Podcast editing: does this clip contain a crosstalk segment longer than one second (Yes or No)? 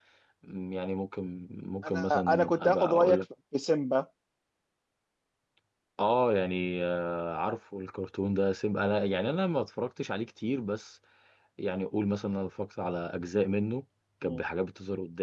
Yes